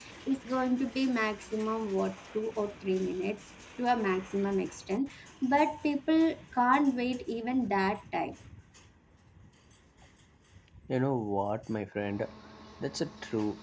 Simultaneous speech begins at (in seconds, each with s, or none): none